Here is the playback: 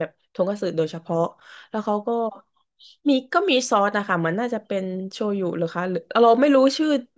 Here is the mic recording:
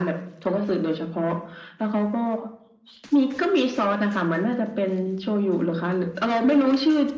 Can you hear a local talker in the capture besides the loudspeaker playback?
No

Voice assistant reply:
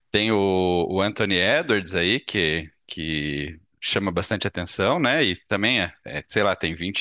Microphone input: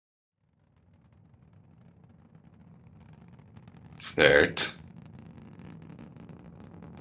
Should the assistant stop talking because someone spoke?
Yes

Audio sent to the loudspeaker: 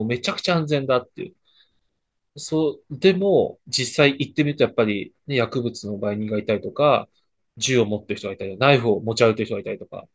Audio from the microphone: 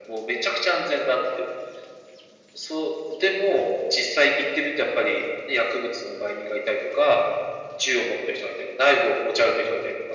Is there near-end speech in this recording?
No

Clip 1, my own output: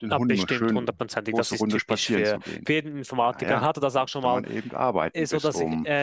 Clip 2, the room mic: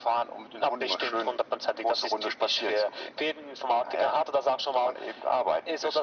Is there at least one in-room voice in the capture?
No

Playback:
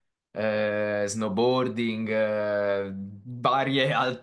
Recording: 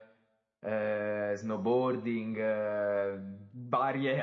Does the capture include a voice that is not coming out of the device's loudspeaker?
No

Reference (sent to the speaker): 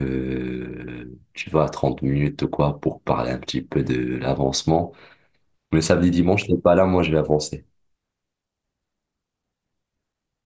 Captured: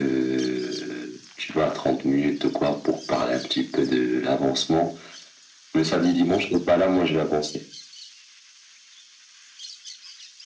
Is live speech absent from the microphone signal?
Yes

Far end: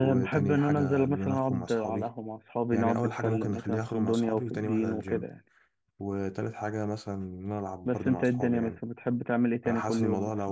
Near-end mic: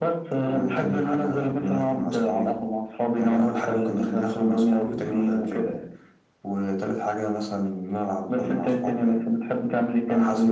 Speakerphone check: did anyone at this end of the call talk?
No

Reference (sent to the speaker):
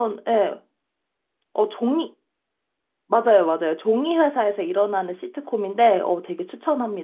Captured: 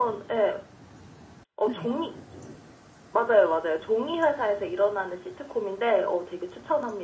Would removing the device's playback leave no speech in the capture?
No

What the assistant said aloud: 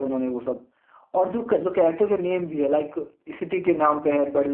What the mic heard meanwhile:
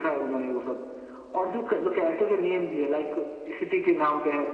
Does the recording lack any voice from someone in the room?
Yes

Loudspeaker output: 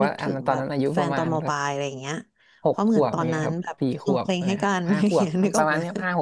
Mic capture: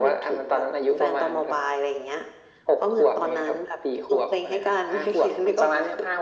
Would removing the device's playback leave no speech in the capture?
Yes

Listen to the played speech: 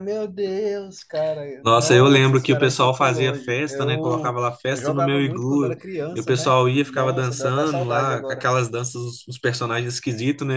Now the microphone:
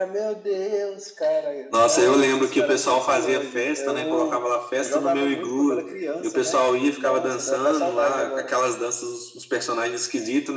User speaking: No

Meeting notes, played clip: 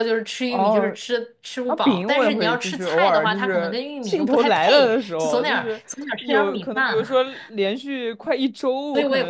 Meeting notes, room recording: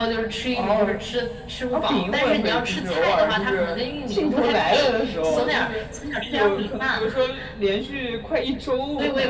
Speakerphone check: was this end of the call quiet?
Yes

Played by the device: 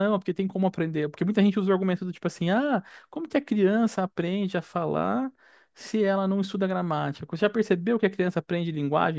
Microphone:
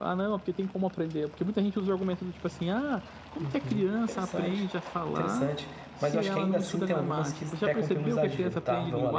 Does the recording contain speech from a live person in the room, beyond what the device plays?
Yes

